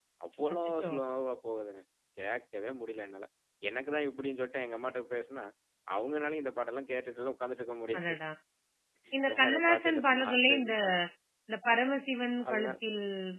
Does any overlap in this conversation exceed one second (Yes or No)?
Yes